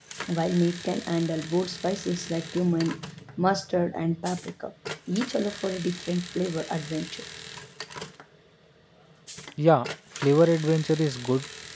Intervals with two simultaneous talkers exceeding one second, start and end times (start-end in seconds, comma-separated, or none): none